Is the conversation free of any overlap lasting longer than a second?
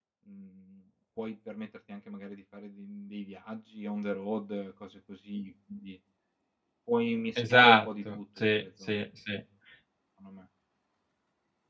No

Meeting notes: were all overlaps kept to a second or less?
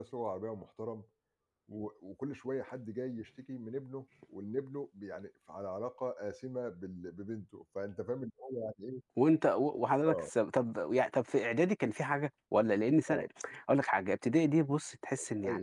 Yes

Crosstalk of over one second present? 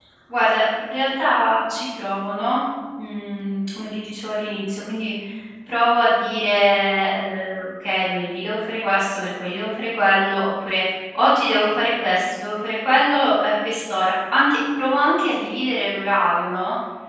No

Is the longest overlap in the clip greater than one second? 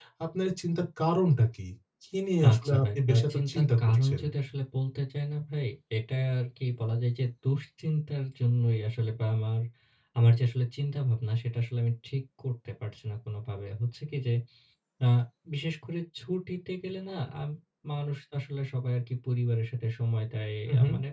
Yes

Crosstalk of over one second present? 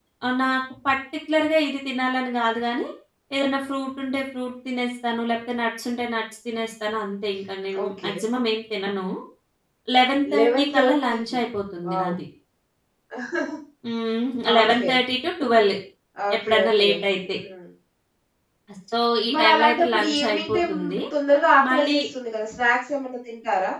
Yes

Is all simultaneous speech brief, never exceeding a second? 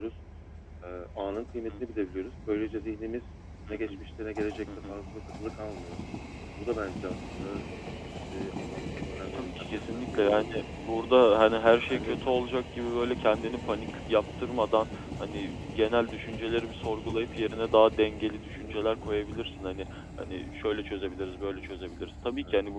No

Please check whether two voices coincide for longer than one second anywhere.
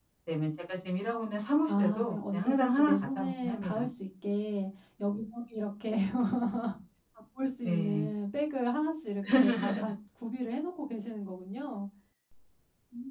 Yes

